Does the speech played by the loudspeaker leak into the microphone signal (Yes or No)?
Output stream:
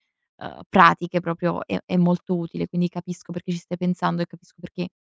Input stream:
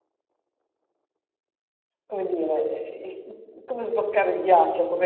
No